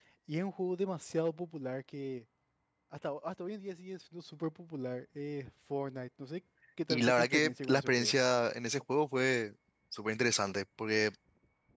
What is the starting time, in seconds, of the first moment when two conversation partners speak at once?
7 s

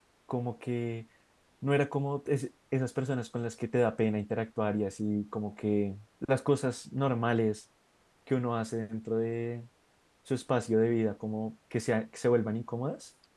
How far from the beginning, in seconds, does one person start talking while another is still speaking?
none

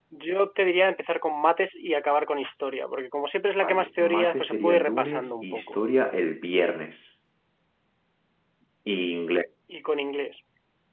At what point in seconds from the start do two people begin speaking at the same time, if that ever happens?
4 s

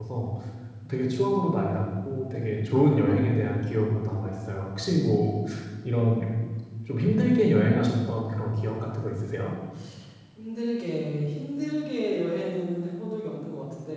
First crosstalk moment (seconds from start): none

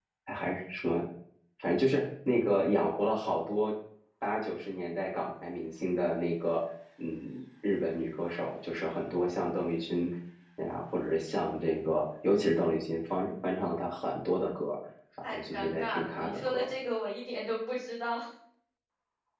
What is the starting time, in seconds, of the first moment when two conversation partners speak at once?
15 s

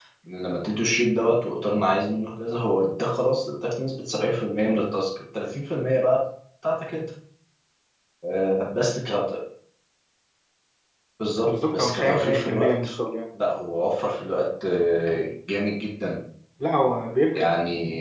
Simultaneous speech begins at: 11 s

